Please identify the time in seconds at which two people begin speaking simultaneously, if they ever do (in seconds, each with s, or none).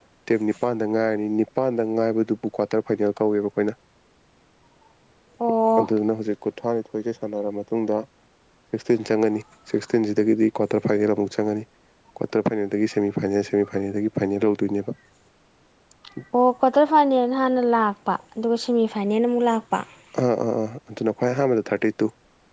none